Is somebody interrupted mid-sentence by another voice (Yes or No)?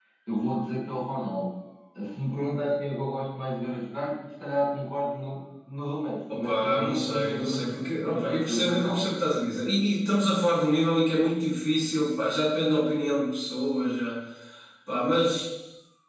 Yes